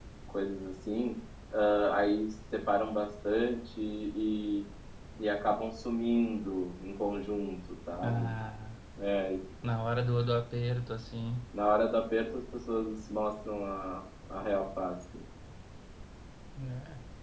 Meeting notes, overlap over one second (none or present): none